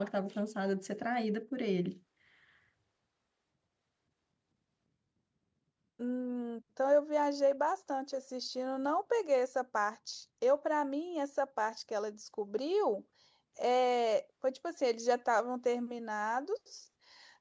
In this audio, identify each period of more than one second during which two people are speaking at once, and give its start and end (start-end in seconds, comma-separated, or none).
none